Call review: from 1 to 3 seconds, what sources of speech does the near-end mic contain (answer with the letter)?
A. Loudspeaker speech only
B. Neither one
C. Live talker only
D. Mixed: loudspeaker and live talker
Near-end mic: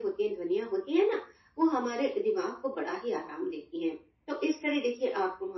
A